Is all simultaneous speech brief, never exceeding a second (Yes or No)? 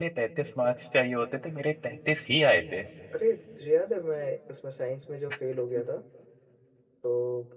Yes